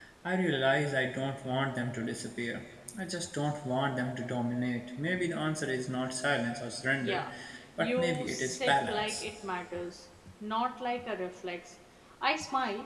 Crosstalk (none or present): present